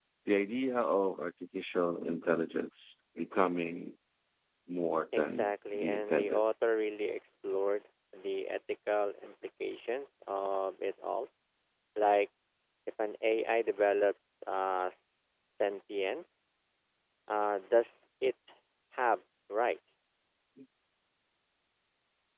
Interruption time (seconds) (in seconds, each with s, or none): 5.1 s